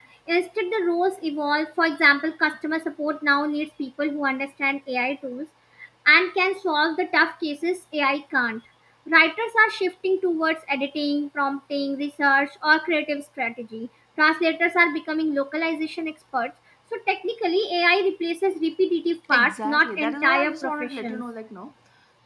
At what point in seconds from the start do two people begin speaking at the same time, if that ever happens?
19.3 s

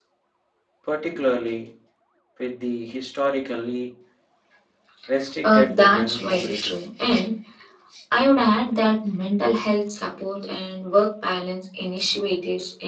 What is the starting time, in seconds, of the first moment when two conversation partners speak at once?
5.4 s

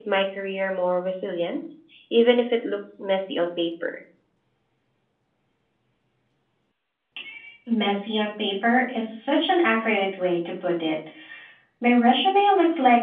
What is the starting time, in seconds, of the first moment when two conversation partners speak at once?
none

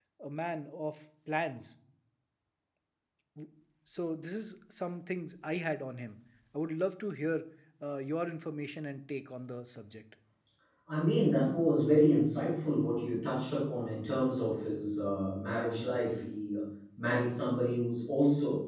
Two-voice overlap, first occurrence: none

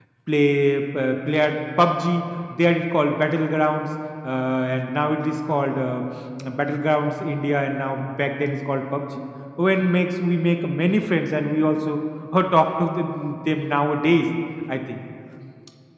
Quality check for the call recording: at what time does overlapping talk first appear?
none

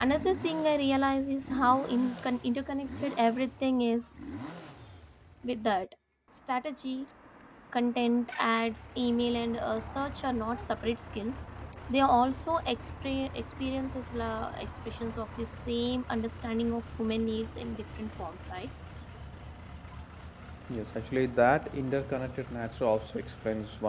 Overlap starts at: none

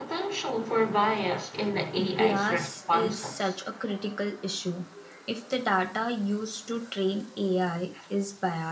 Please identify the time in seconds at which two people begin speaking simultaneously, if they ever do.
2.0 s

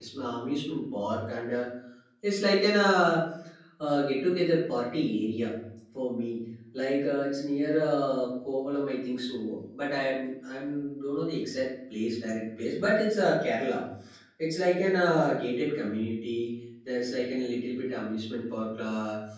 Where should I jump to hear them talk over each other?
none

